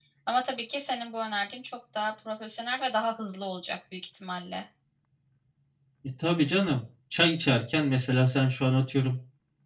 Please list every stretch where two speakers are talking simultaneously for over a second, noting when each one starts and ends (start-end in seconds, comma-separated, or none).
none